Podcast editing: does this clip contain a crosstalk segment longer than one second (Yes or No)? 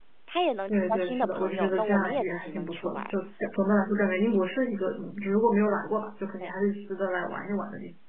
Yes